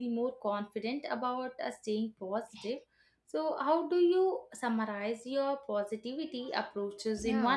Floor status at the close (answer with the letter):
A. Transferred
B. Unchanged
A